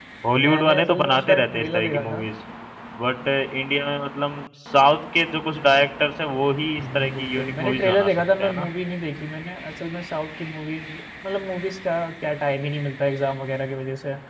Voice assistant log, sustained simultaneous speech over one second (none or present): present